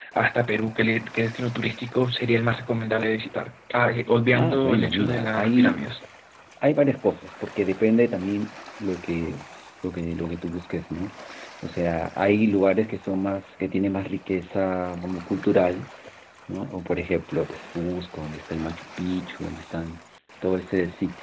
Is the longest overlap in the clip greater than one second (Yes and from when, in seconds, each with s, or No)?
Yes, from 4.3 s